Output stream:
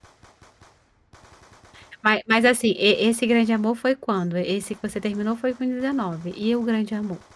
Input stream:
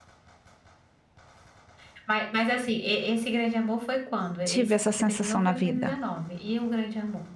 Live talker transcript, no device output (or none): tive essa sensação na vida.